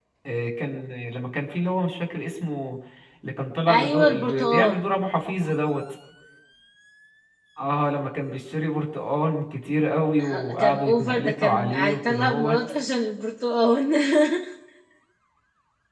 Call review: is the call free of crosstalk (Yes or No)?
No